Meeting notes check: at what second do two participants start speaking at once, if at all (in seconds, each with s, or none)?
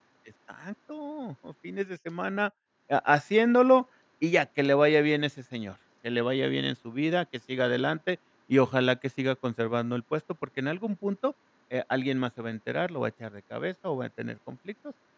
none